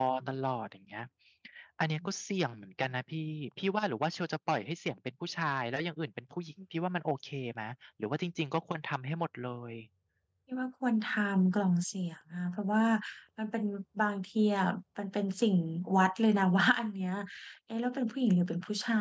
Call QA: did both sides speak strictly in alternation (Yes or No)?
Yes